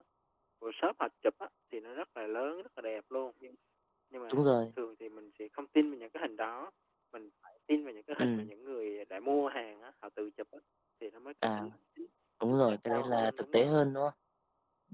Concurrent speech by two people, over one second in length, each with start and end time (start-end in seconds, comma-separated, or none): 12.5-13.8